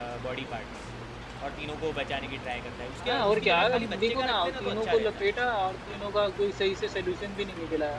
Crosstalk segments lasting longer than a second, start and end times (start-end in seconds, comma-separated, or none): 3.0-5.2